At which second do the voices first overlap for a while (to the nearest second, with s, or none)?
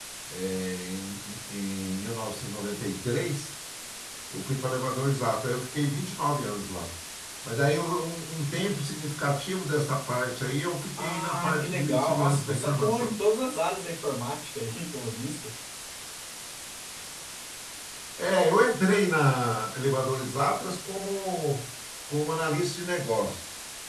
11 s